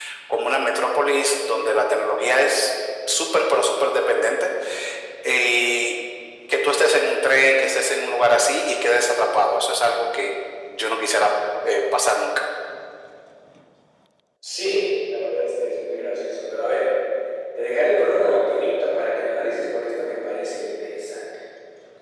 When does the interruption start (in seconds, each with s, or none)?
none